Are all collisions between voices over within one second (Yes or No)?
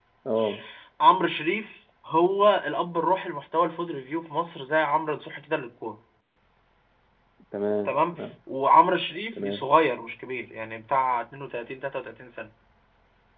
Yes